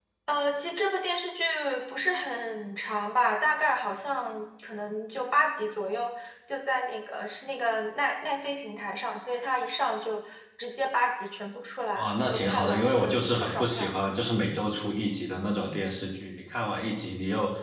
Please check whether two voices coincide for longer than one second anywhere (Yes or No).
Yes